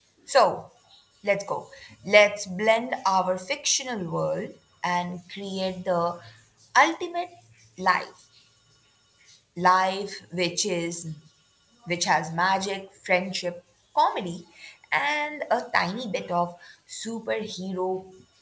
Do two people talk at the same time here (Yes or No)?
No